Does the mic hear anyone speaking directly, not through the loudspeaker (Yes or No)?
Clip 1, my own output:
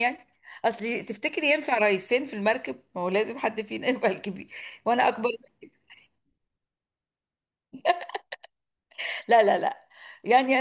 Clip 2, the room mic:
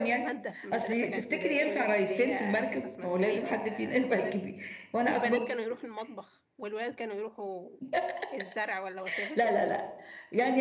Yes